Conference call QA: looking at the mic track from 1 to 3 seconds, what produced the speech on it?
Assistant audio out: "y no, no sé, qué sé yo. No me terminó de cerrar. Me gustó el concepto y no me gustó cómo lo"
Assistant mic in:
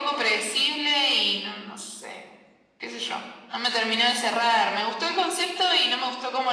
echo only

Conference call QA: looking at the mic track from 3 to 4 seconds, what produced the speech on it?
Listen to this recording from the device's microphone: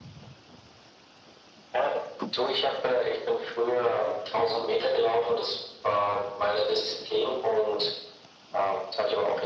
echo only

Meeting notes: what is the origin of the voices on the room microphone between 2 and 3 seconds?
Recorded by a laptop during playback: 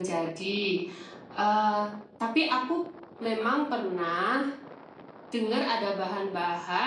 echo only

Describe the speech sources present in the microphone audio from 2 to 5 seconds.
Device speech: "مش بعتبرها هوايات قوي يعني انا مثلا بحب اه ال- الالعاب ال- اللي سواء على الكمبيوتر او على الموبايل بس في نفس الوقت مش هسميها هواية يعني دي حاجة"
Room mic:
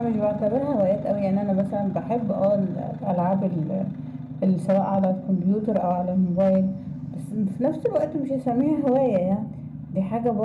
echo only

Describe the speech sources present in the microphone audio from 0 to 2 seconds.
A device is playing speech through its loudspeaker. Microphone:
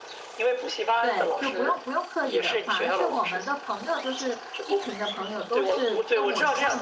both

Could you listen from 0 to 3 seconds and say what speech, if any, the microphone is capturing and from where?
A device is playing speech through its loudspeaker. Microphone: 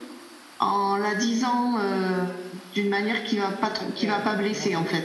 echo only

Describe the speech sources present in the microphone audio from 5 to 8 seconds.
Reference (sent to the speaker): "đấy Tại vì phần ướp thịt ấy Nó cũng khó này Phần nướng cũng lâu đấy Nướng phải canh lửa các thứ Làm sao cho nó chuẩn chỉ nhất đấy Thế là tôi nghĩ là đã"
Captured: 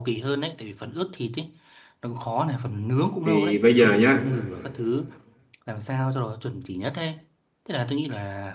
echo only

